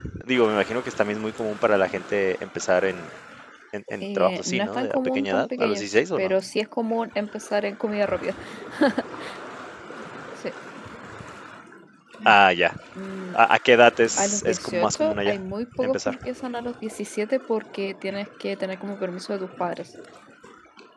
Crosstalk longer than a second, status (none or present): present